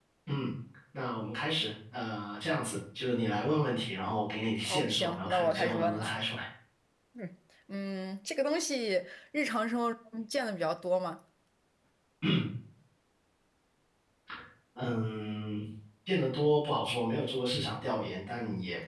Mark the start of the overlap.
4.6 s

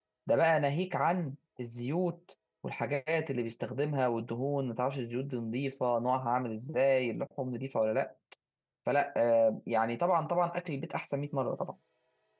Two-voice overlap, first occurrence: none

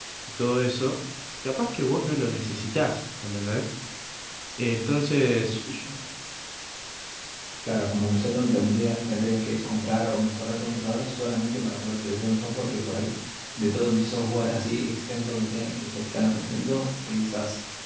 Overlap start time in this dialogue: none

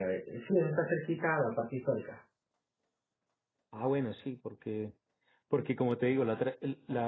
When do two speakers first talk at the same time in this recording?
none

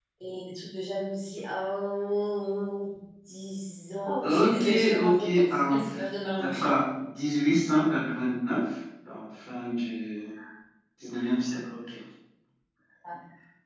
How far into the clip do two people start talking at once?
4.2 s

